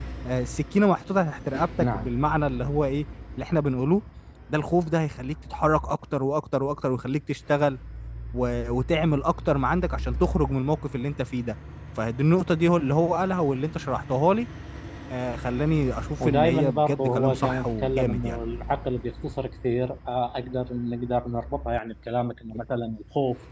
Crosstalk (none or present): present